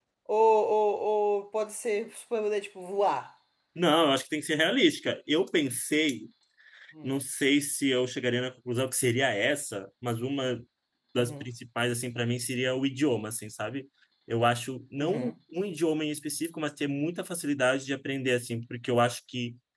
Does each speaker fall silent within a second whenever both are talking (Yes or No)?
Yes